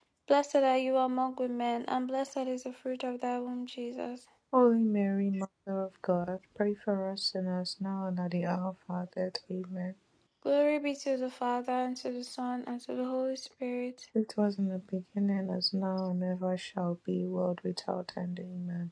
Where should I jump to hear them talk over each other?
none

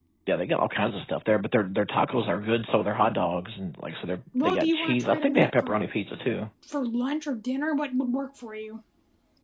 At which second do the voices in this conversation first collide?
4 s

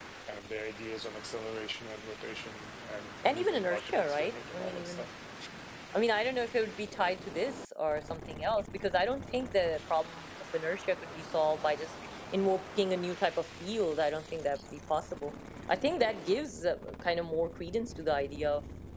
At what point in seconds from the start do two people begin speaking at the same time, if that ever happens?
3 s

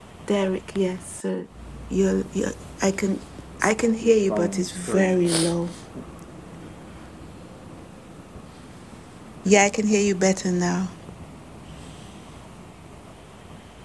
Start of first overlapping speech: 4 s

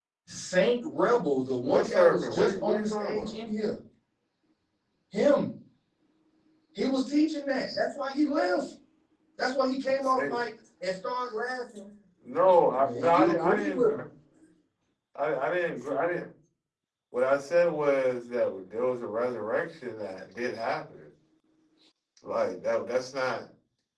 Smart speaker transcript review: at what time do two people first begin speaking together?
2 s

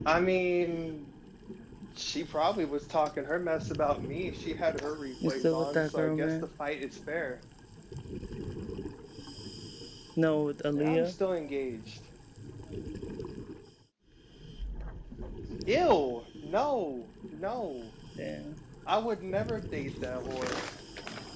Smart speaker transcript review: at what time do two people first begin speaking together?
5 s

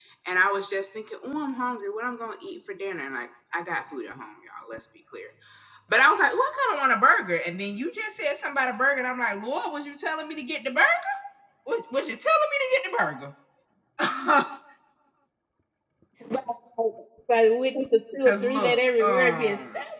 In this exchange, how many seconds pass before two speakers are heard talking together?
18 s

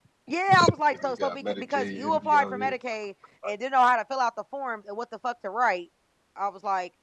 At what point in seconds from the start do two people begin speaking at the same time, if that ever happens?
1 s

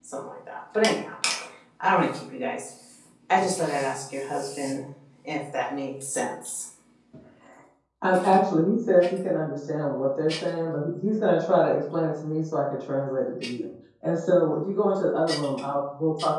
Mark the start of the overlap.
none

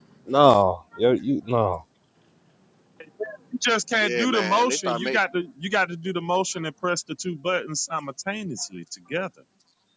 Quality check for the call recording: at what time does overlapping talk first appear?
4 s

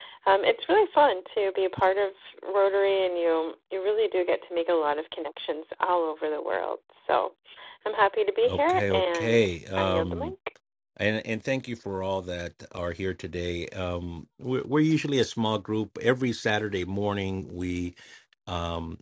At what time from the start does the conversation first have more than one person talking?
8 s

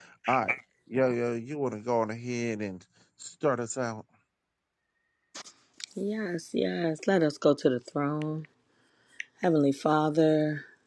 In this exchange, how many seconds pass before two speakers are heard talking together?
none

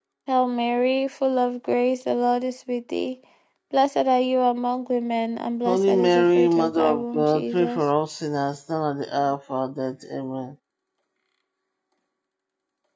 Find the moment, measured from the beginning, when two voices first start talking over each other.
6 s

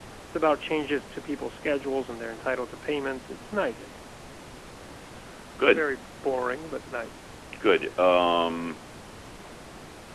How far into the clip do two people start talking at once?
none

